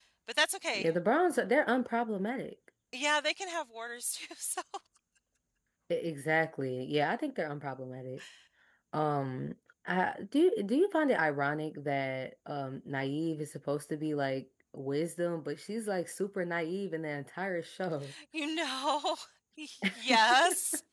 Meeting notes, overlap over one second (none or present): none